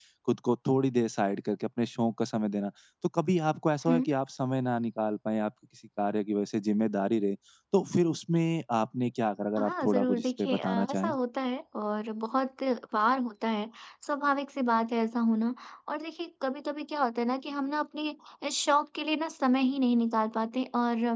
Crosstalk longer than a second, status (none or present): present